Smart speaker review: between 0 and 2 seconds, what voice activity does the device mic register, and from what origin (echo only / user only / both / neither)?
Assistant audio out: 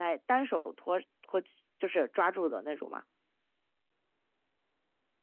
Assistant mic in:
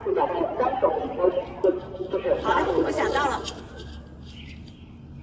echo only